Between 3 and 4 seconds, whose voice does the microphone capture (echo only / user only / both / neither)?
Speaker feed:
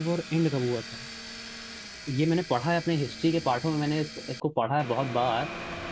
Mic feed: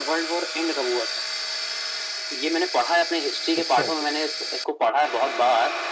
both